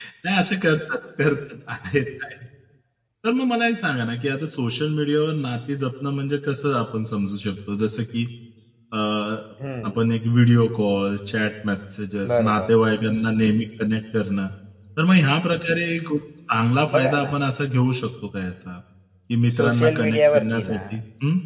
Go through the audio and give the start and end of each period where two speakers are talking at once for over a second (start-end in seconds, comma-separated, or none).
19.6-21.0